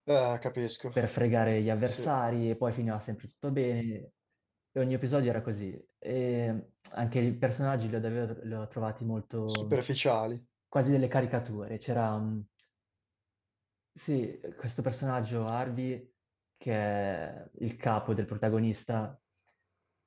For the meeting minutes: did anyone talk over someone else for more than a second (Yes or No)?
No